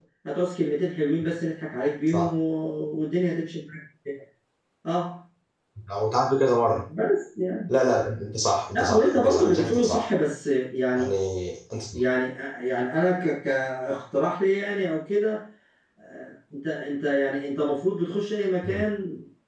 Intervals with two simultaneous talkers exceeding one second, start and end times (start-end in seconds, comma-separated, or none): 8.7-10.1